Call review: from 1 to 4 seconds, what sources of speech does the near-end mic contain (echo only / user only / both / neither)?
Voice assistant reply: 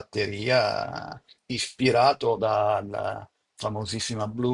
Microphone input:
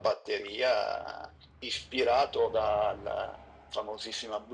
echo only